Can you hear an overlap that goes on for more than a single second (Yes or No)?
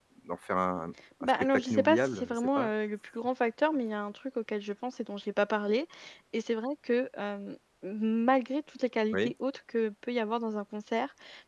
Yes